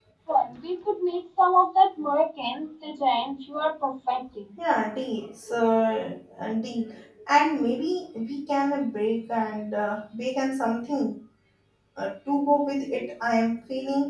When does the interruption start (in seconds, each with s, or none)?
none